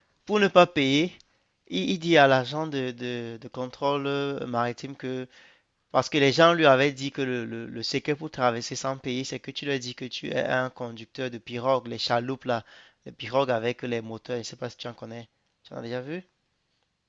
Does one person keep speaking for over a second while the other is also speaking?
No

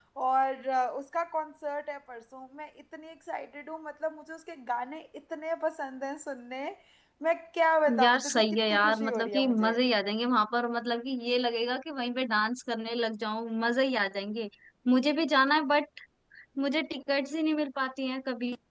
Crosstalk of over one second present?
Yes, from 8.0 s

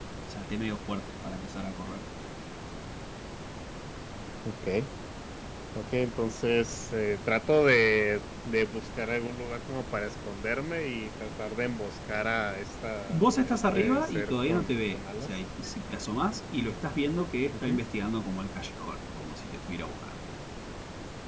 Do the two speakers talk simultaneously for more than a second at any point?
Yes, from 13.1 s

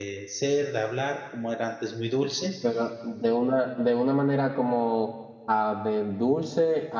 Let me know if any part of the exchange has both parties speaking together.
No

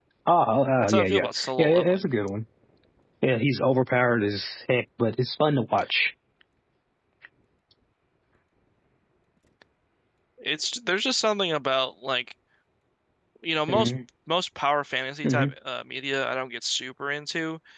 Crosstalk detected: Yes, from 0.8 s

